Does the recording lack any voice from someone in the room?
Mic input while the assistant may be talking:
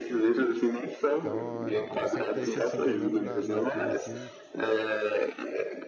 No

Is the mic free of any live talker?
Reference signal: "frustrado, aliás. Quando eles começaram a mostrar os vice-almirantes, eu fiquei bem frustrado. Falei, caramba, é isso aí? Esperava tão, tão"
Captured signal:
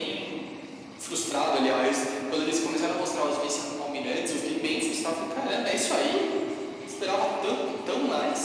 Yes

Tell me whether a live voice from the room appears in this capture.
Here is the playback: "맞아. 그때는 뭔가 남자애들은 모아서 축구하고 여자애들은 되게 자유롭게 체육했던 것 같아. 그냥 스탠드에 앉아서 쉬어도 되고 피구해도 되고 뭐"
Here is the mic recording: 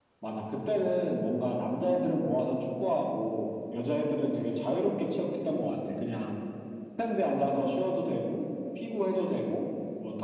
No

